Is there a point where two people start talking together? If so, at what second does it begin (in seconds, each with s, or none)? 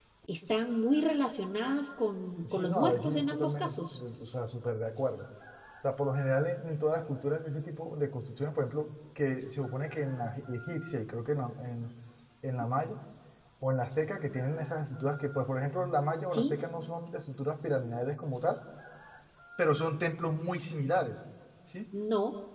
2.5 s